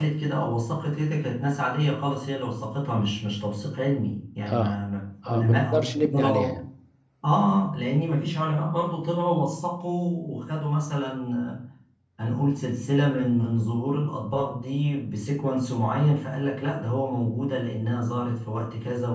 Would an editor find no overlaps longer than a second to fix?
No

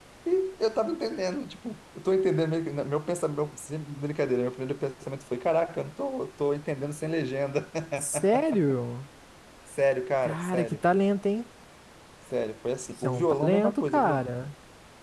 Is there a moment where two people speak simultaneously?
Yes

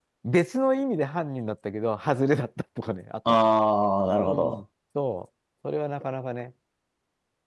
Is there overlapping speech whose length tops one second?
No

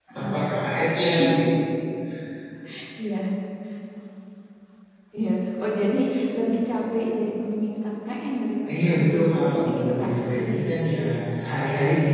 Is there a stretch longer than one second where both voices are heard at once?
Yes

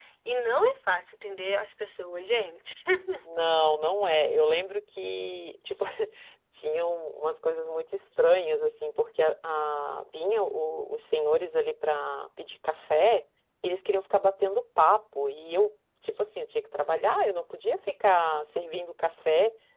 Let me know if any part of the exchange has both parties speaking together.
No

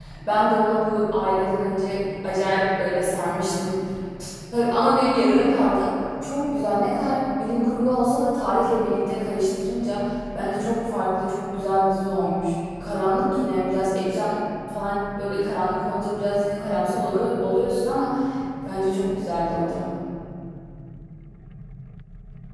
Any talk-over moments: No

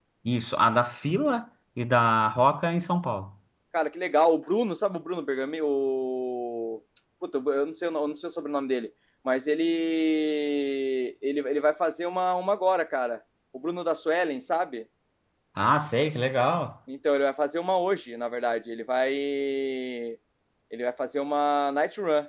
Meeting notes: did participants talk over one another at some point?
No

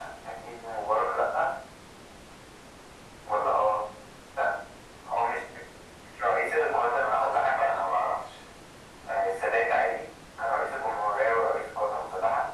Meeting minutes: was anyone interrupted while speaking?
Yes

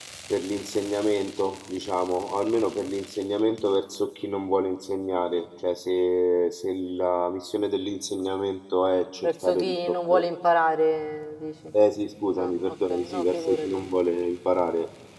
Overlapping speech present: Yes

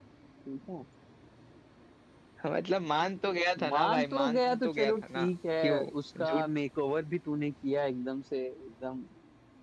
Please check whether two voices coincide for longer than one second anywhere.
Yes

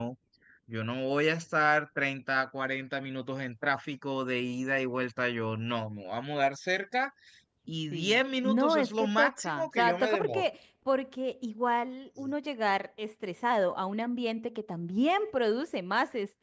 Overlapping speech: Yes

